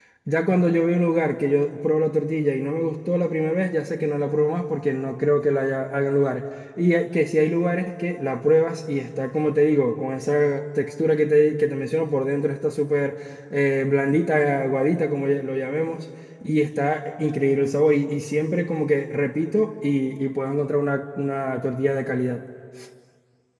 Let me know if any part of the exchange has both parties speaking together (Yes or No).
No